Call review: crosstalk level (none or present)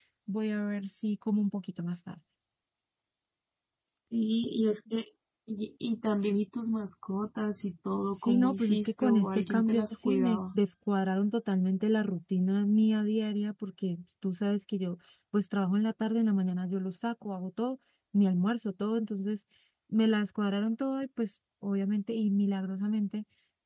present